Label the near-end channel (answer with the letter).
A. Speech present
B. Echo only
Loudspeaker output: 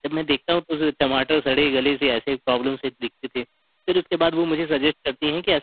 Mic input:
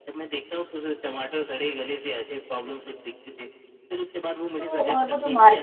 A